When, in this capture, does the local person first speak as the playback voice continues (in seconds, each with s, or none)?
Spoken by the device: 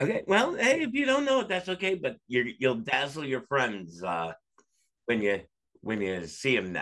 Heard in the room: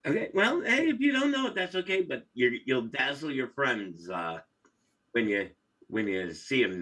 none